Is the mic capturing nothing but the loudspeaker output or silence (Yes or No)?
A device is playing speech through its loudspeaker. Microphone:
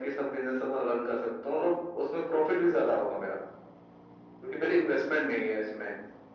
Yes